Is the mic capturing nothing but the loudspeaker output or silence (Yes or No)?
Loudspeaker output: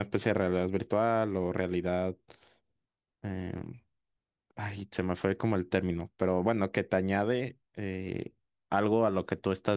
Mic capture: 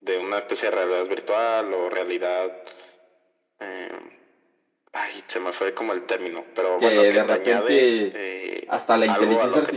No